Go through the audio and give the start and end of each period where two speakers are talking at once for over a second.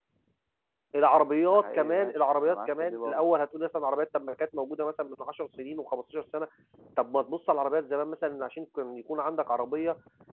1.5-3.2

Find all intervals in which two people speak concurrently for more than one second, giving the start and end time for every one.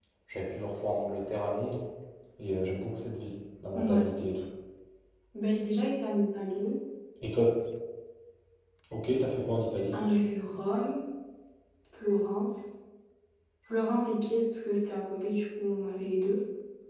none

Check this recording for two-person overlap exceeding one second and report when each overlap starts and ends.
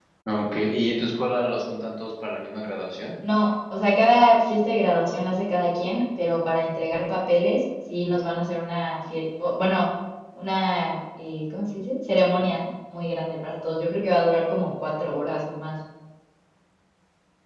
none

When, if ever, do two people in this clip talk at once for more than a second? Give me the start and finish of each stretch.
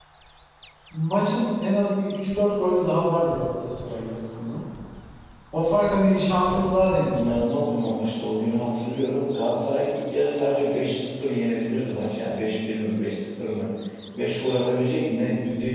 none

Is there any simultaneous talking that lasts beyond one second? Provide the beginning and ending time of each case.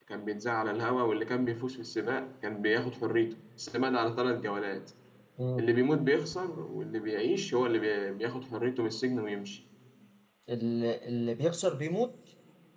none

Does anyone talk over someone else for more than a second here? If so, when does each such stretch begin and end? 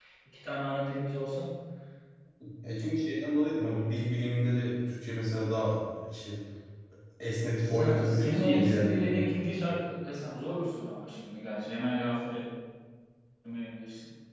7.6-9.3

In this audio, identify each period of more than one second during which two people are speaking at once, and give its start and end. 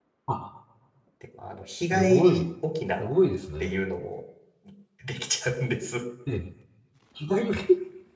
none

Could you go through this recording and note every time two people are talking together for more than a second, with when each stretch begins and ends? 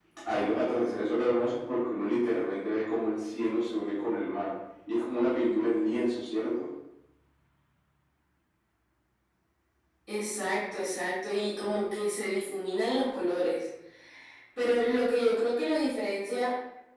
none

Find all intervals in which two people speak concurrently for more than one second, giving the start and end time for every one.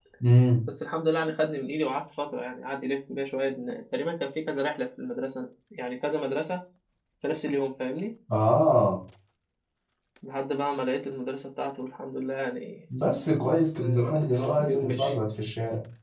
13.8-15.1

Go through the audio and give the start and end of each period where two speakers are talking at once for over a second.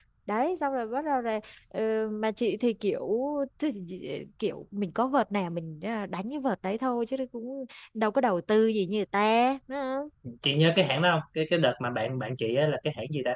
none

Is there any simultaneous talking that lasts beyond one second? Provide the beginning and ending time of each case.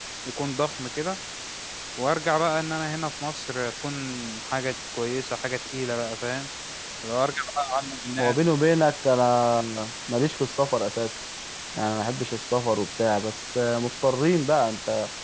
none

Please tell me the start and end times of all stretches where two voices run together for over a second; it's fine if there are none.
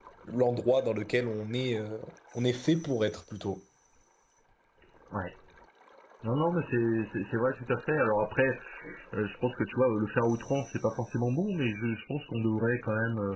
none

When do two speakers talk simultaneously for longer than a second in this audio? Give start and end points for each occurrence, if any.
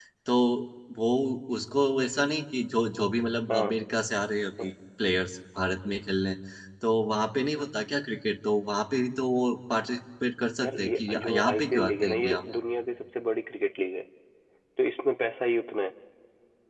10.6-12.4

